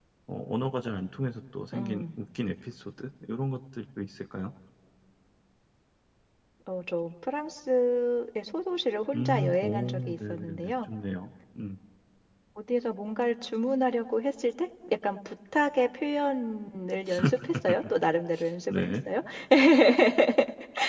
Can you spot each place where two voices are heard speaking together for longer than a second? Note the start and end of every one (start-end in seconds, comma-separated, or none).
9.1-10.9